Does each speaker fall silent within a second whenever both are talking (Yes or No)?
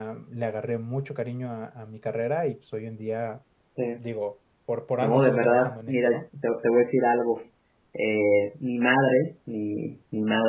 No